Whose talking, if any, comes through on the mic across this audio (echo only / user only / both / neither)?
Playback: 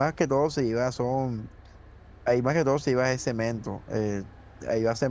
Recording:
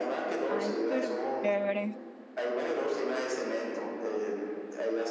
both